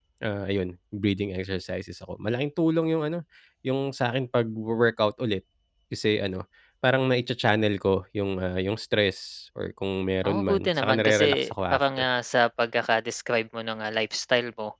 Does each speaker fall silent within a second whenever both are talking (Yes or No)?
No